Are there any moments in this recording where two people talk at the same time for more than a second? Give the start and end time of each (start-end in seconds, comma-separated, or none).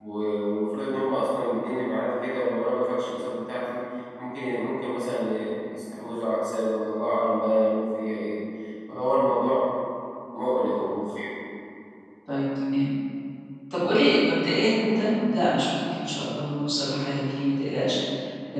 none